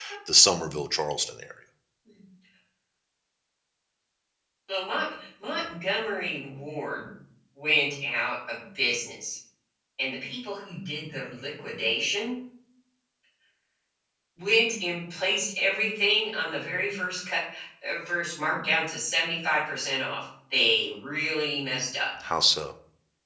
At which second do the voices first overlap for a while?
none

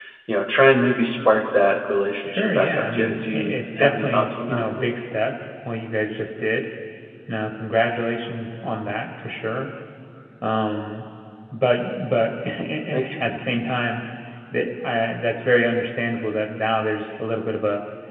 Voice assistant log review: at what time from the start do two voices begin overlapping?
2.3 s

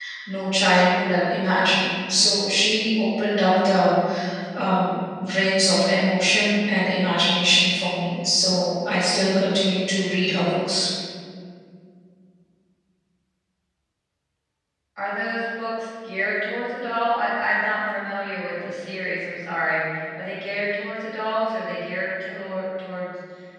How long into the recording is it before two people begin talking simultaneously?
none

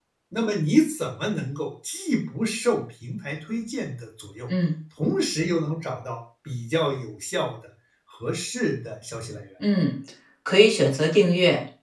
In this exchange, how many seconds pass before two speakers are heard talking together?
none

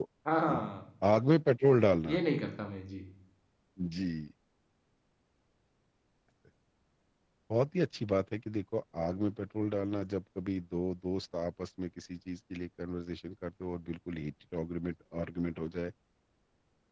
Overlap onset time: none

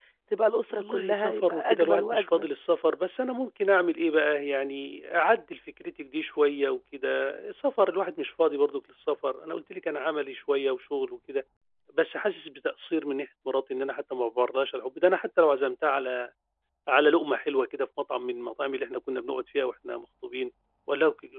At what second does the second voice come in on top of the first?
0.7 s

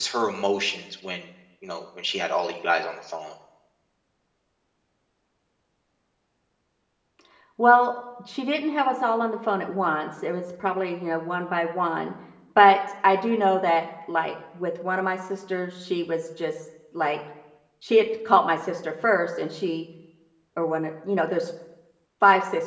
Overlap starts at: none

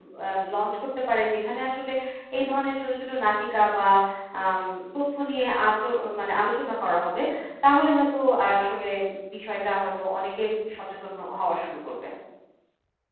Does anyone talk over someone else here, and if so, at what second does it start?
none

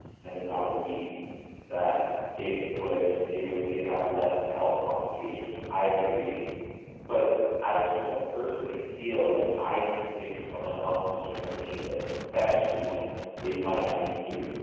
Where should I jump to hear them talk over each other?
none

